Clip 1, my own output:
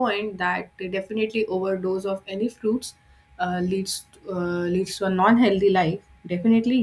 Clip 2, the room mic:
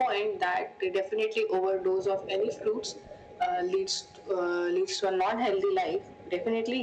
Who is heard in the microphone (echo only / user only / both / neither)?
echo only